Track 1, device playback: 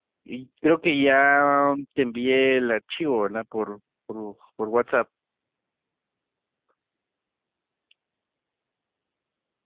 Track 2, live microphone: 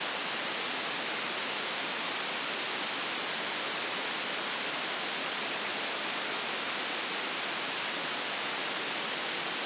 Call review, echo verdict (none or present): none